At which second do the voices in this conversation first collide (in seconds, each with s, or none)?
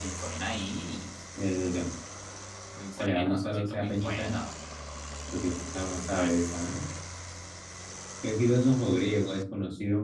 2.9 s